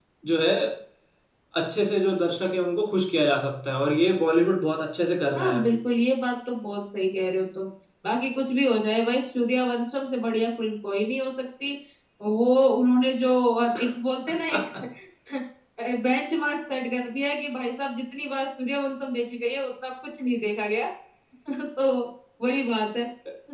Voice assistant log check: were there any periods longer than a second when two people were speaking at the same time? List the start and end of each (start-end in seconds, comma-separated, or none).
none